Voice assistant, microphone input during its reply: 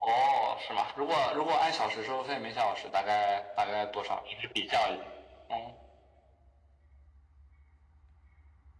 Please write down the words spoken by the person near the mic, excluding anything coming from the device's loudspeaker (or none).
none